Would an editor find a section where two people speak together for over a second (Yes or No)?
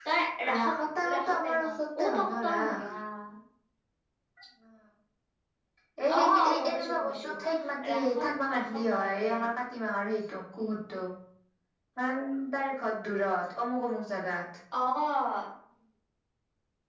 Yes